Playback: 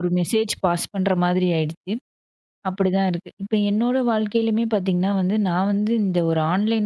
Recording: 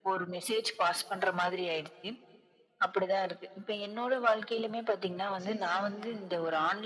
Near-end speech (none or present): present